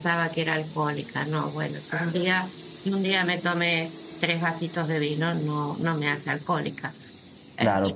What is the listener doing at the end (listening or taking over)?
listening